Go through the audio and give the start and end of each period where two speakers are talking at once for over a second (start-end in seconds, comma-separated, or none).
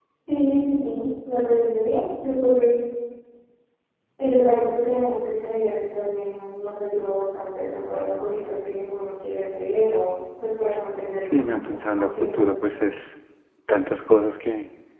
11.3-12.8